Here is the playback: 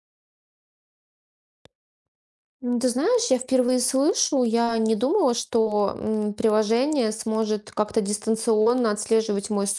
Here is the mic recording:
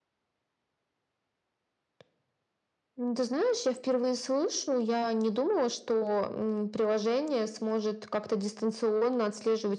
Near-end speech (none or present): none